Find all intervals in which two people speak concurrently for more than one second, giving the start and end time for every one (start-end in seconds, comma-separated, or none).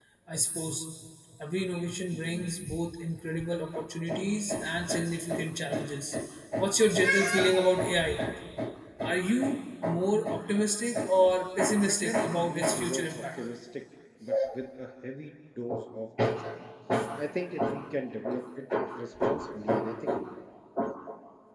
11.9-13.4